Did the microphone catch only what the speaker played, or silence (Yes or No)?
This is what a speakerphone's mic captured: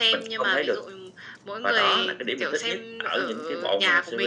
Yes